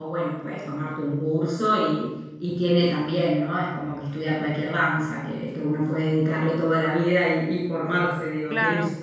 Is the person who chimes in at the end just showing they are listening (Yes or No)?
No